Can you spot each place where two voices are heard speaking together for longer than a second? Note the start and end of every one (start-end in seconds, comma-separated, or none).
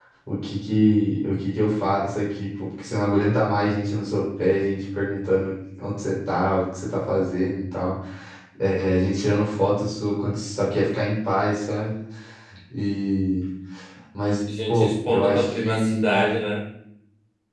14.7-16.0